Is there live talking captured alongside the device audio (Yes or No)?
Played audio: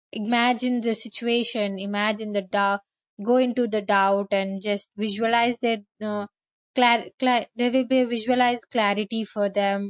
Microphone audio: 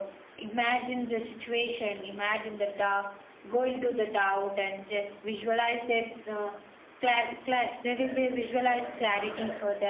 Yes